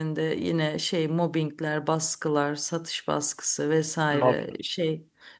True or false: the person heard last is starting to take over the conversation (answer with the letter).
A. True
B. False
B